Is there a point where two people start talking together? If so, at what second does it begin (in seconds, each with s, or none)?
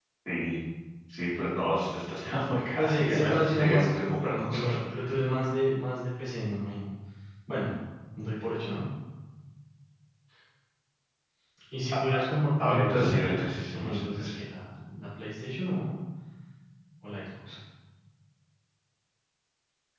2.8 s